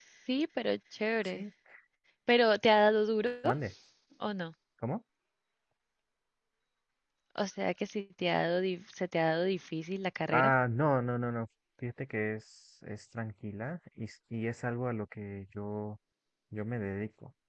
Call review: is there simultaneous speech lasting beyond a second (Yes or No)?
No